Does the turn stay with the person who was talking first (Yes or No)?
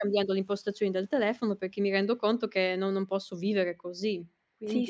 No